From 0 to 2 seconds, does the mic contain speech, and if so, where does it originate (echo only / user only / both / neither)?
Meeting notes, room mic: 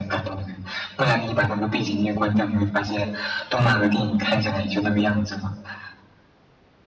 echo only